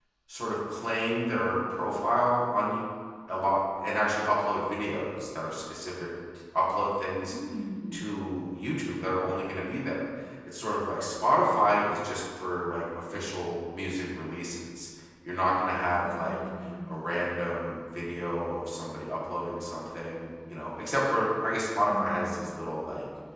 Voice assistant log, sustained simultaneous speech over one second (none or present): none